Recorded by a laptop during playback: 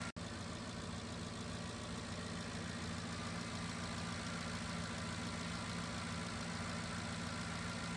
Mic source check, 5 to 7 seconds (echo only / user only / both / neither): neither